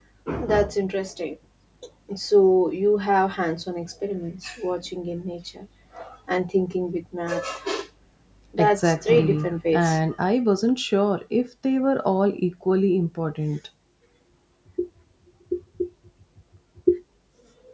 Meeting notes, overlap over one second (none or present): present